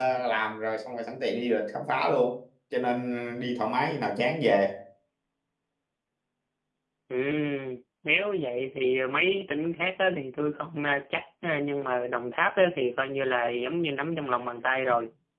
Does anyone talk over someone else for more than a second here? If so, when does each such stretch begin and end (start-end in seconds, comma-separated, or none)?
none